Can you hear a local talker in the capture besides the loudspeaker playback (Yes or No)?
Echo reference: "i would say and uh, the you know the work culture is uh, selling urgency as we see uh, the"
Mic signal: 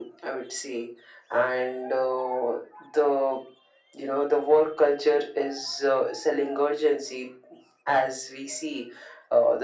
No